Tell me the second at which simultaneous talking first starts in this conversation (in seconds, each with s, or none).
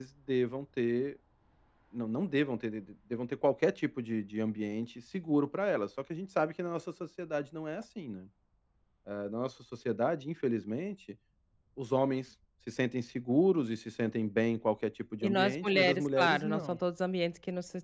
15.2 s